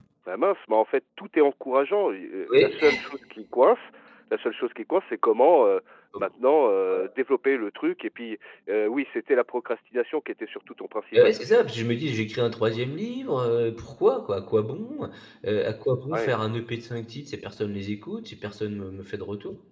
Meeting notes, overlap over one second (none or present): none